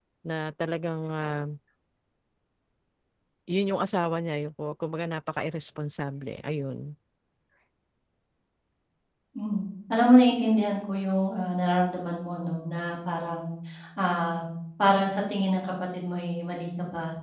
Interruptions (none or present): none